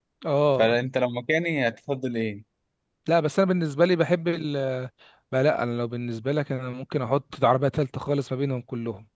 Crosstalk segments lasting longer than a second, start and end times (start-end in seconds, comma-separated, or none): none